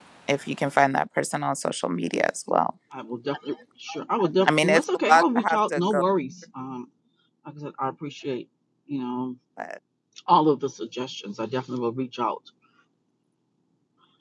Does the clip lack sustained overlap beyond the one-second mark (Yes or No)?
No